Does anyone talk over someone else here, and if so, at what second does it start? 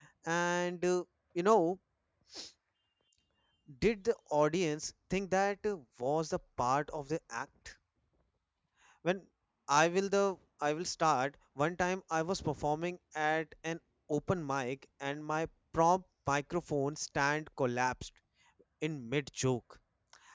none

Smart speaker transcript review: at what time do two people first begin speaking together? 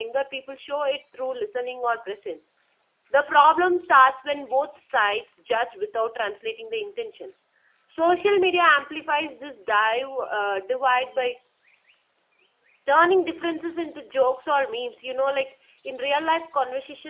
none

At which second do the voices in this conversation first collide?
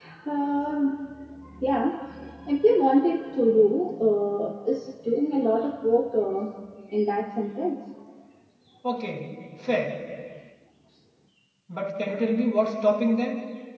none

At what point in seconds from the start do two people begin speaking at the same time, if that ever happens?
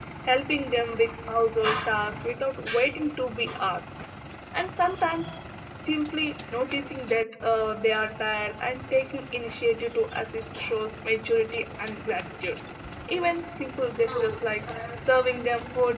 none

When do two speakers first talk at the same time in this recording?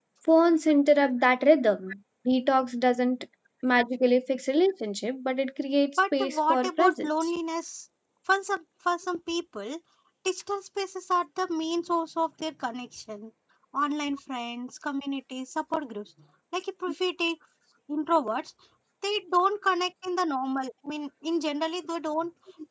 6.0 s

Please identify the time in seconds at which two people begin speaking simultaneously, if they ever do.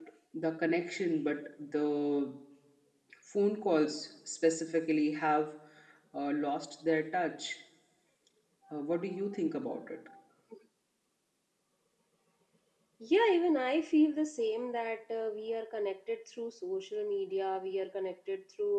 none

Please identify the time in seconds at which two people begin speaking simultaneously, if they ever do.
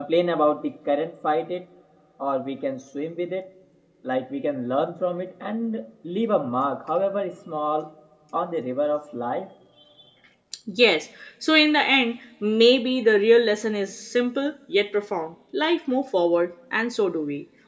none

